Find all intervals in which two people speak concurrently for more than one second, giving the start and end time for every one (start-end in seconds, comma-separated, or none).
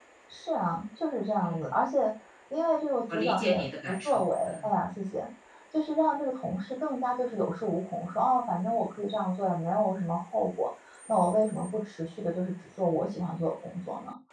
3.1-4.7